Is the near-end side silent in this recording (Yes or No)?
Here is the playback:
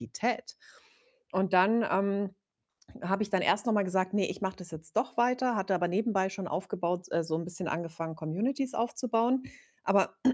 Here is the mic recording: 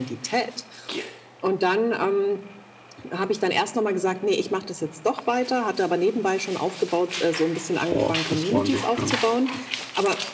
No